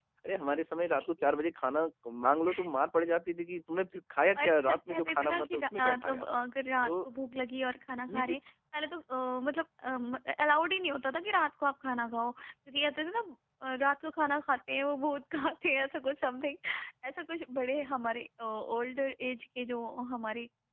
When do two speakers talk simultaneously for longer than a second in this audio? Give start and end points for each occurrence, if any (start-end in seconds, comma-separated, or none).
4.3-6.2